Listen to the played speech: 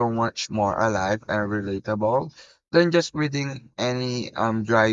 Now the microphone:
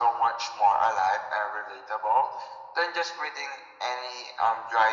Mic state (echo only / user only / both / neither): echo only